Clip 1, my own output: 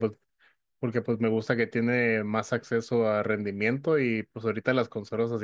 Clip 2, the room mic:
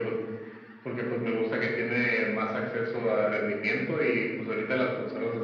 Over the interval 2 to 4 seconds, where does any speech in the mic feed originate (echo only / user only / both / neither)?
echo only